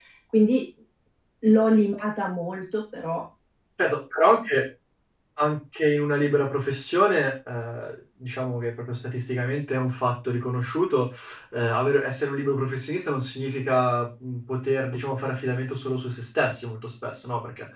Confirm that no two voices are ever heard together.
Yes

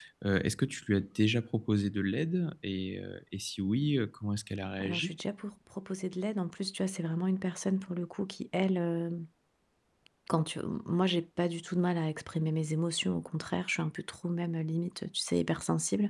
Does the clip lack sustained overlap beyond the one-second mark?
Yes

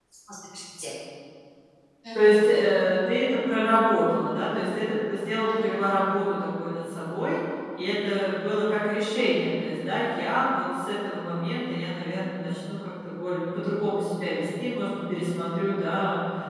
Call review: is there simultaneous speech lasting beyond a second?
No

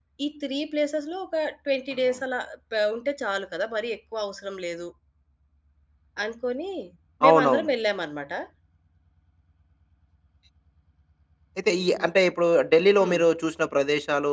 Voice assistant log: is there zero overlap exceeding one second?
Yes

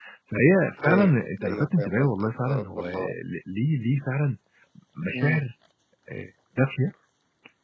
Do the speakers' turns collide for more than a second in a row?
Yes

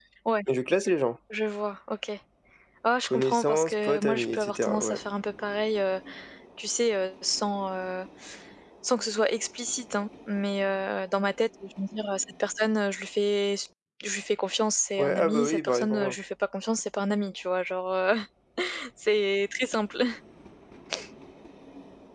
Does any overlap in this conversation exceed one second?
Yes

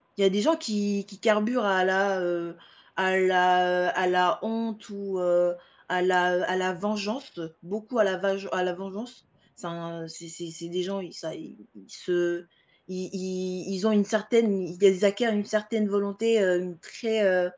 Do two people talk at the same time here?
No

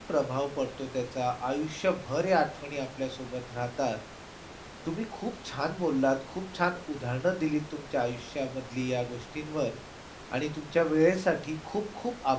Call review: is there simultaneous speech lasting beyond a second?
No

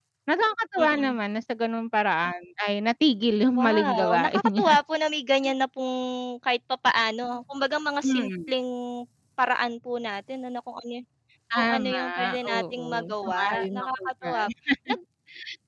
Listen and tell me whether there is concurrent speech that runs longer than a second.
Yes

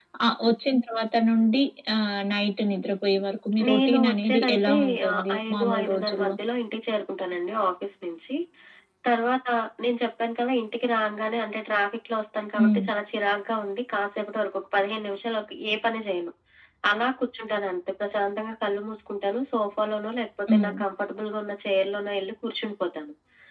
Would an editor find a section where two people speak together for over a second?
Yes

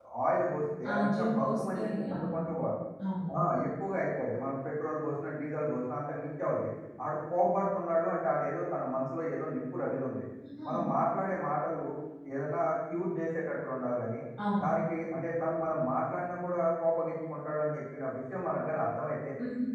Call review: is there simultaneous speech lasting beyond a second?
Yes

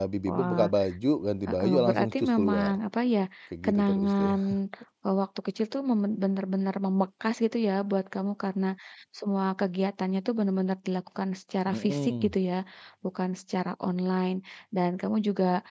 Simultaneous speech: Yes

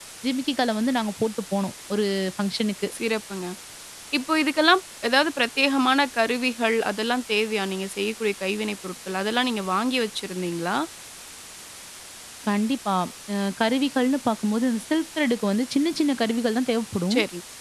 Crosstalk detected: No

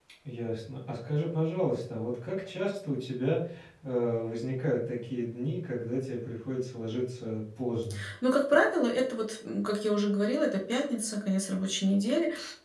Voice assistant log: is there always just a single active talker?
Yes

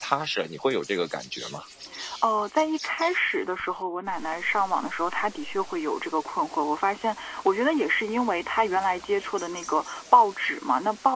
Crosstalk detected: No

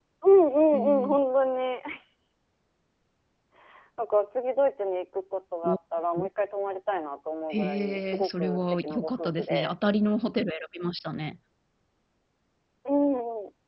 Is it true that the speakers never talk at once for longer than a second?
No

